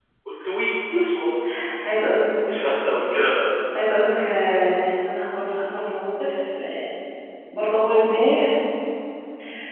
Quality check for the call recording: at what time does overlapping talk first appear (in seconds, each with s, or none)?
none